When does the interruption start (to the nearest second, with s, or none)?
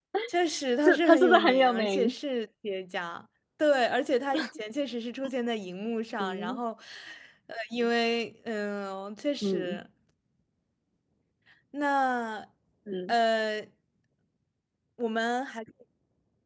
1 s